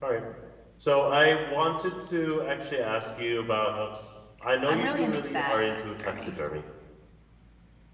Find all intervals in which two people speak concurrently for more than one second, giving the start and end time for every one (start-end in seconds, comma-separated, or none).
4.7-6.1